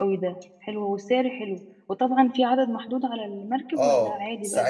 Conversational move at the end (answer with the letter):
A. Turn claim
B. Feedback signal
A